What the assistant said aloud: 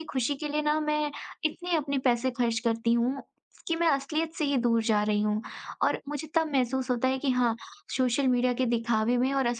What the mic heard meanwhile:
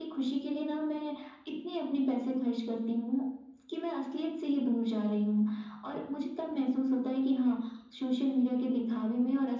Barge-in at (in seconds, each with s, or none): none